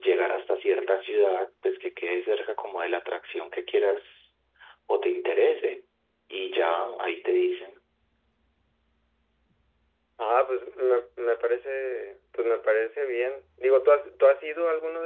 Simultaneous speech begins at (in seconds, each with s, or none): none